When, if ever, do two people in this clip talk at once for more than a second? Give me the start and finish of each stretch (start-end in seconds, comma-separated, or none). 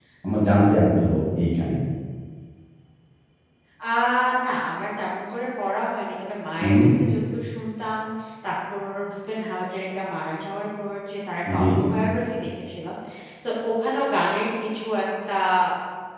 none